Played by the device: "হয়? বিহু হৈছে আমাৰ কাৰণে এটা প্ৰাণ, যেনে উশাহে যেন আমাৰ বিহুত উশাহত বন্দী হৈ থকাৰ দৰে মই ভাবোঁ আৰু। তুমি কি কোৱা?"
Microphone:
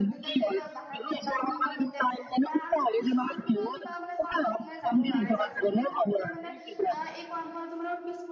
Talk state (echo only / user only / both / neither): both